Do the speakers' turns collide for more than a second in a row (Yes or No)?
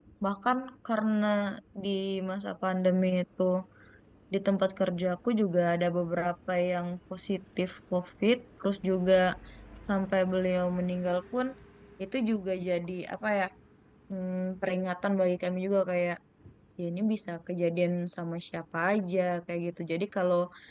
No